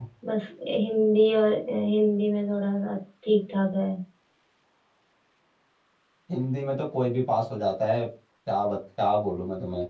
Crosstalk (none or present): none